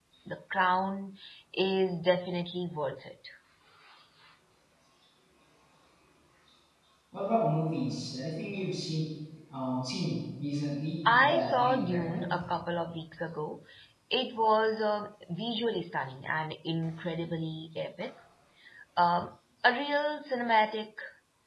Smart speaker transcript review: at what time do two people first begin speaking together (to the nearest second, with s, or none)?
11 s